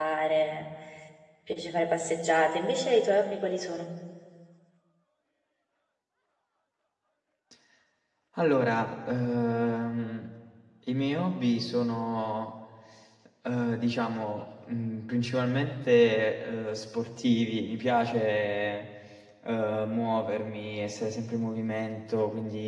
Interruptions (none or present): none